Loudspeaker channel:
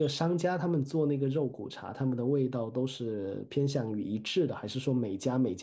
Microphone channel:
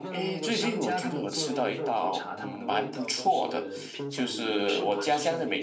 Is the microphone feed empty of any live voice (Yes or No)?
No